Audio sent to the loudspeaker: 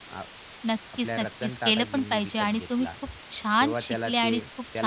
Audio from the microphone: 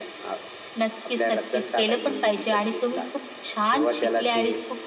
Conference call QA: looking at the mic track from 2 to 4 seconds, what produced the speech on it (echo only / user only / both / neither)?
echo only